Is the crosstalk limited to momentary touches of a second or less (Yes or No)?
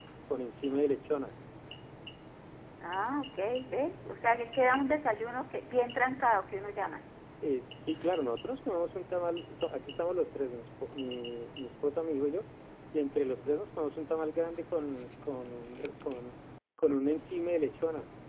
Yes